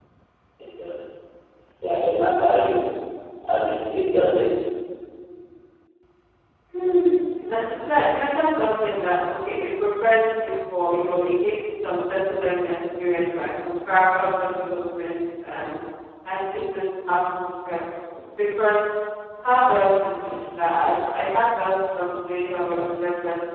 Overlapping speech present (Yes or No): No